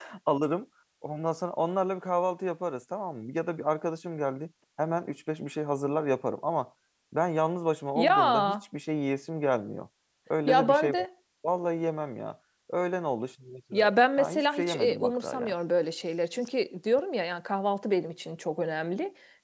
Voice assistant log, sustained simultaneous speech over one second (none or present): present